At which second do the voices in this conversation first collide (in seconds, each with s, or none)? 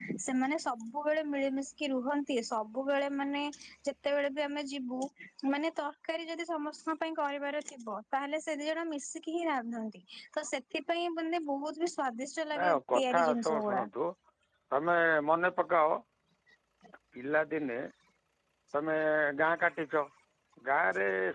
12.5 s